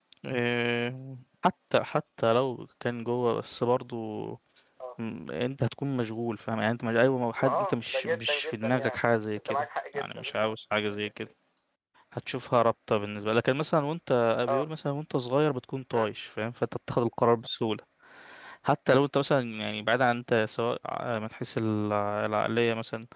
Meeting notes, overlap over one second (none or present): present